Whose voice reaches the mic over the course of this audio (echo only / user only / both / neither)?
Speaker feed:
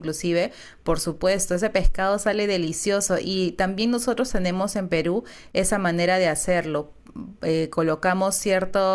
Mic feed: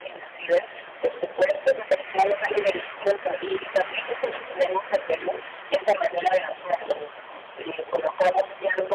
echo only